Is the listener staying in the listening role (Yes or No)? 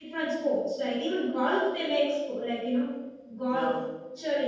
Yes